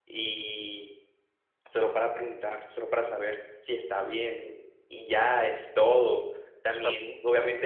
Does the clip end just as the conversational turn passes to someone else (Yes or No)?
No